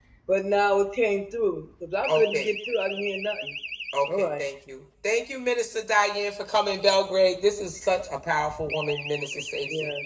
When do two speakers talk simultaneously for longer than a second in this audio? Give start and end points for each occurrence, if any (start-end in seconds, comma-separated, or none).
none